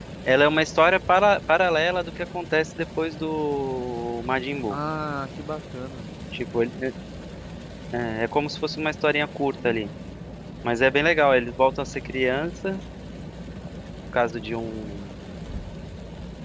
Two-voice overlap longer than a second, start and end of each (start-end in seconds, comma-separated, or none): none